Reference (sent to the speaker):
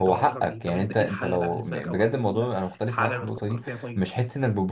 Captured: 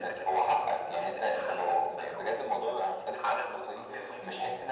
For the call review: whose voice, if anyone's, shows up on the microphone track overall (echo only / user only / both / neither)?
echo only